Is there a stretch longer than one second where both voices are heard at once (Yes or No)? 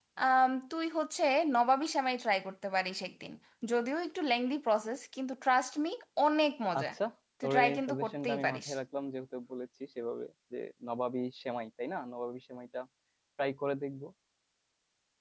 Yes